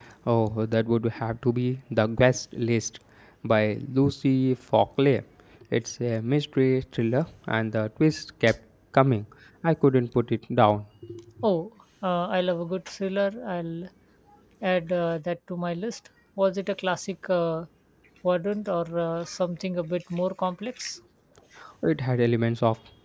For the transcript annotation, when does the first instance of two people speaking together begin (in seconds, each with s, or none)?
none